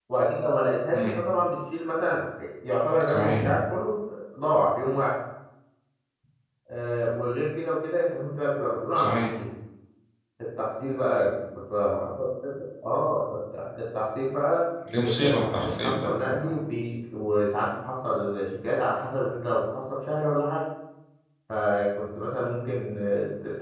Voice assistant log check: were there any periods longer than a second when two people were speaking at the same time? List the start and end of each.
15.0-16.5

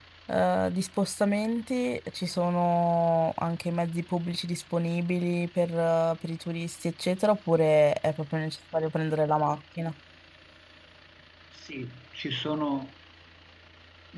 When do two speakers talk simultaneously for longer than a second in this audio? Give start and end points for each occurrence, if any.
none

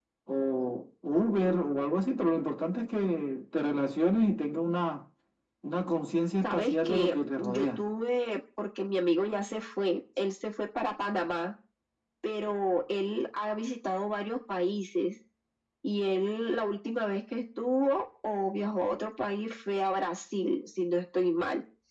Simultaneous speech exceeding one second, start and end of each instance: 6.4-7.8

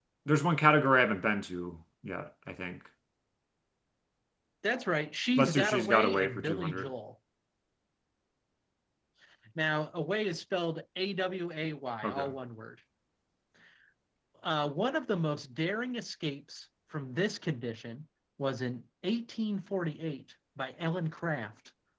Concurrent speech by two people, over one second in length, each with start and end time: 5.4-6.9

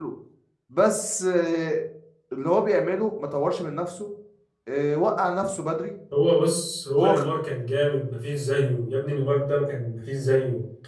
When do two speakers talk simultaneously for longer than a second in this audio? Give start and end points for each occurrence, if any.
none

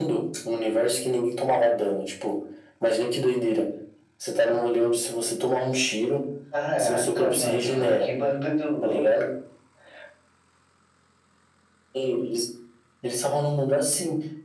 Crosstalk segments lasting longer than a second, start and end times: 6.8-8.1

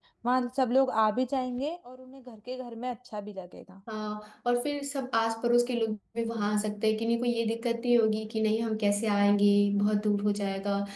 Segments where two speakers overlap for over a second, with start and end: none

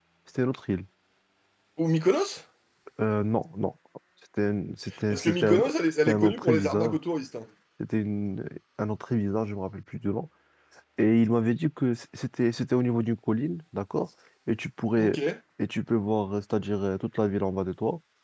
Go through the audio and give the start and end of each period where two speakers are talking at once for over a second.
5.1-7.0

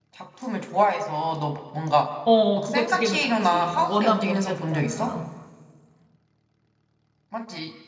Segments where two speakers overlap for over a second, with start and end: 2.6-5.2

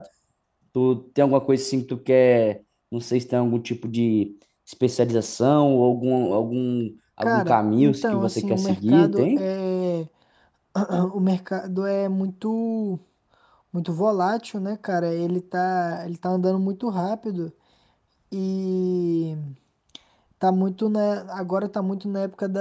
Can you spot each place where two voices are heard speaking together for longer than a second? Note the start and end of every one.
7.2-9.5

